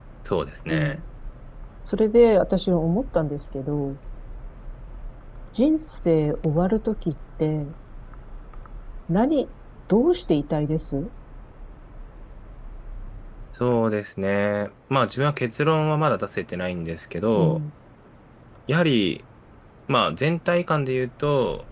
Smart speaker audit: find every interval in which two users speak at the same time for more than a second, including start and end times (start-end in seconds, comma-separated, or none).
none